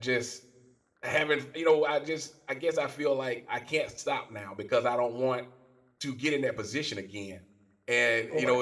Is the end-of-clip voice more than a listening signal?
No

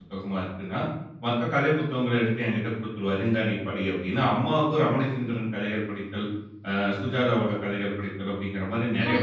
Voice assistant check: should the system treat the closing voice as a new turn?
Yes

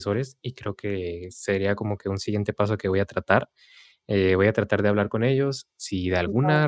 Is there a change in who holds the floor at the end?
No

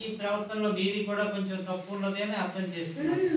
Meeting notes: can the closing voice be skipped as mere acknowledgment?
No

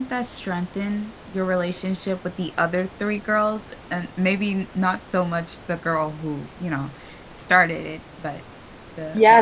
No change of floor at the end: No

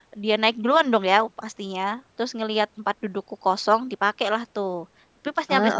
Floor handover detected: No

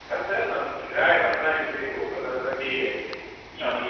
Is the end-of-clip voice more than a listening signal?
No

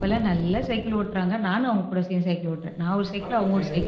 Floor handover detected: Yes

